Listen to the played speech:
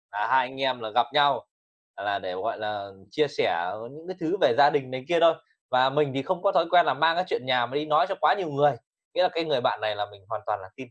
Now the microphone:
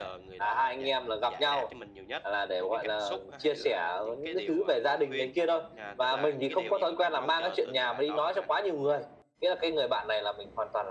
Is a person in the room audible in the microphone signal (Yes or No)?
Yes